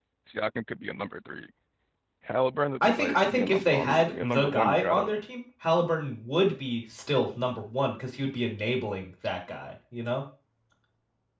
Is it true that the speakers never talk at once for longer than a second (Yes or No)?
No